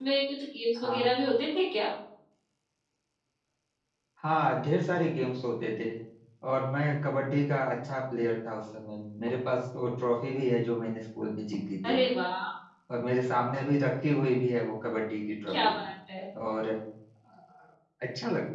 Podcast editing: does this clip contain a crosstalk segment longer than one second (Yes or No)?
No